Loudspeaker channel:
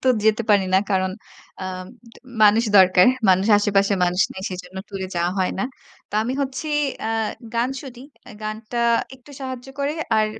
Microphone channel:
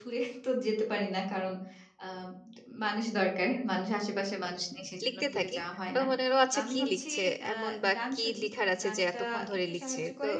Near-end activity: present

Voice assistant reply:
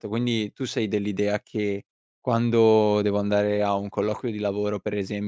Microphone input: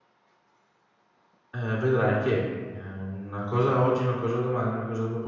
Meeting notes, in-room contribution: present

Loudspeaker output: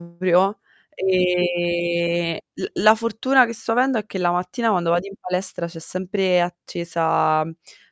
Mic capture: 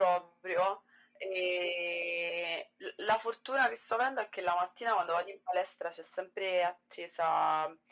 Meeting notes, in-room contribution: none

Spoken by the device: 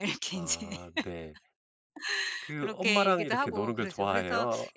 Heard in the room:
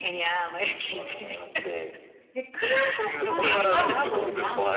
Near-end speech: present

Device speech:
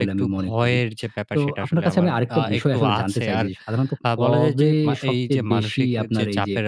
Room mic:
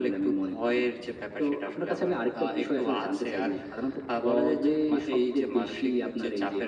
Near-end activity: none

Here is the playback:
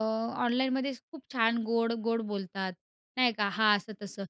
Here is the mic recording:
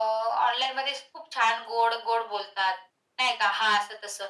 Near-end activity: none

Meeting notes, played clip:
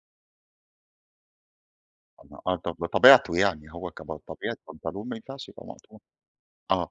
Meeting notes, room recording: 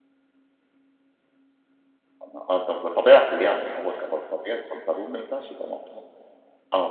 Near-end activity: none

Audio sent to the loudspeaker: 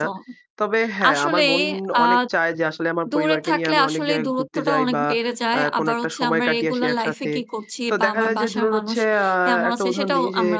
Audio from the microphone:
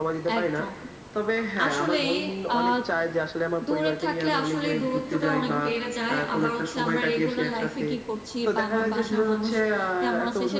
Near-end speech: none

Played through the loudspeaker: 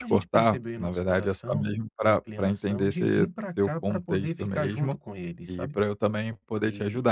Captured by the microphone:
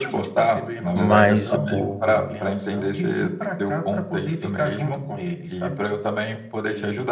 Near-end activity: present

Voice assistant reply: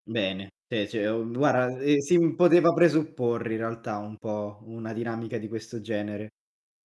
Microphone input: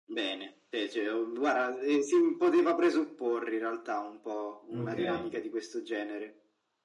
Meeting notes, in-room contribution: present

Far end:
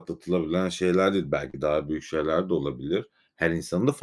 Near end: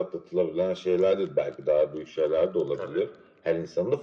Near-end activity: present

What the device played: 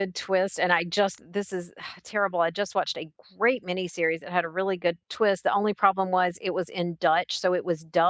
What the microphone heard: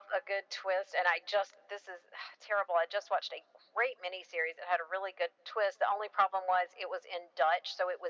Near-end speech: none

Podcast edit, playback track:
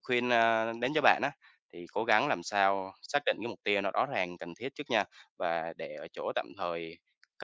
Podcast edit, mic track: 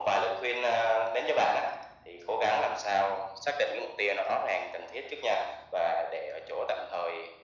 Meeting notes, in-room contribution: none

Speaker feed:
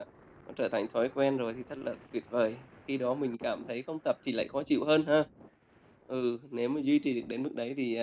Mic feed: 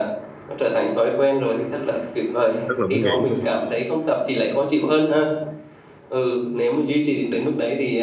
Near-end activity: present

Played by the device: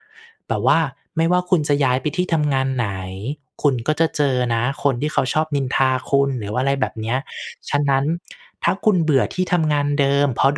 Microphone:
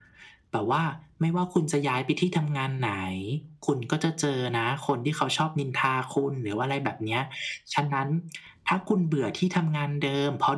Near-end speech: none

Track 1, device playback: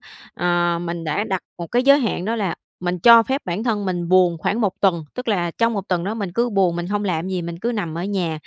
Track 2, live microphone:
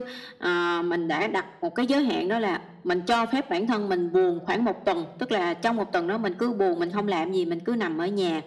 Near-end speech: none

